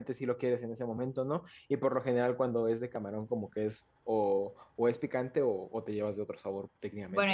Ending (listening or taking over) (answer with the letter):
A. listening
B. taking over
B